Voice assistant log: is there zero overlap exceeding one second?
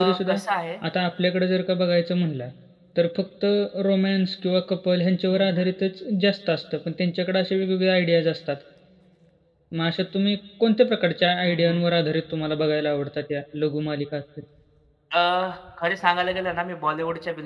Yes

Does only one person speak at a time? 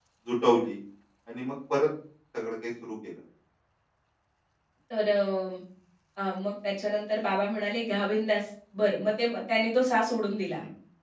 Yes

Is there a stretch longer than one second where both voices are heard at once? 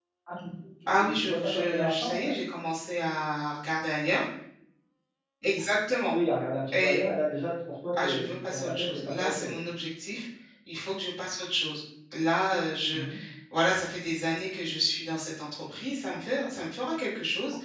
Yes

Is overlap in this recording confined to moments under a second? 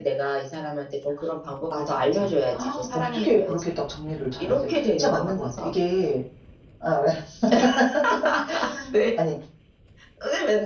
No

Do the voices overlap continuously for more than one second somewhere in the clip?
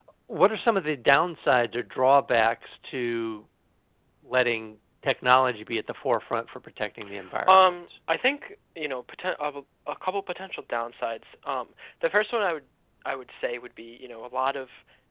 No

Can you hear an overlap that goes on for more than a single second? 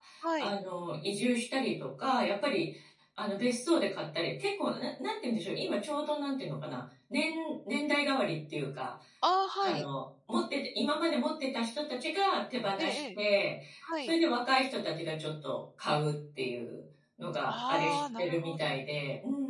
Yes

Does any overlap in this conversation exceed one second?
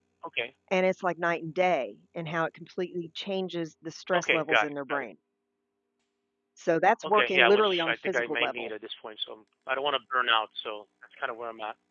Yes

